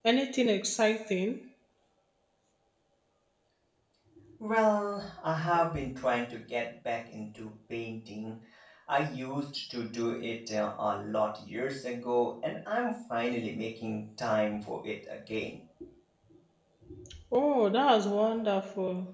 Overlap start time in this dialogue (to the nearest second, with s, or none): none